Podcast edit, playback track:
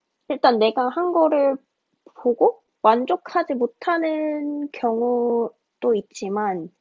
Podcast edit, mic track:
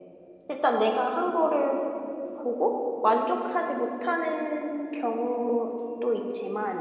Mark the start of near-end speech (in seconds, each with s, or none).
none